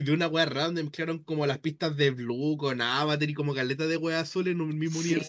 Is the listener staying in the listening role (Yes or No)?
No